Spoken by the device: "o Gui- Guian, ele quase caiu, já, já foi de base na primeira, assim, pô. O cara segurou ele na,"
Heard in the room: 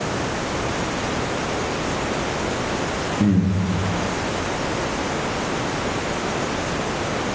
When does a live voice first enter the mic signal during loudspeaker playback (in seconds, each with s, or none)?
3.2 s